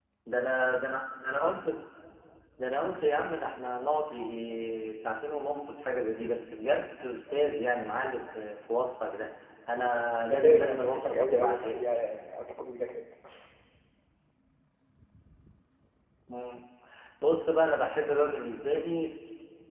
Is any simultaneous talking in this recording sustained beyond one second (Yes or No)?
Yes